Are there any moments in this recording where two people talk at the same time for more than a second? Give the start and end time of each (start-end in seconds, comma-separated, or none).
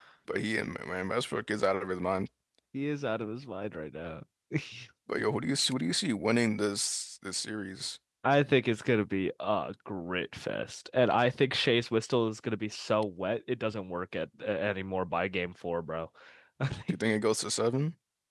none